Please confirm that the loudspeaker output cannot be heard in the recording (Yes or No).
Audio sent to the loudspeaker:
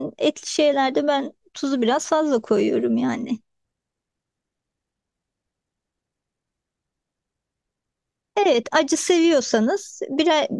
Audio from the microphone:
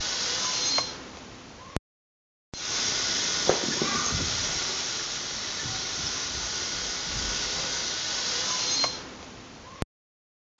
Yes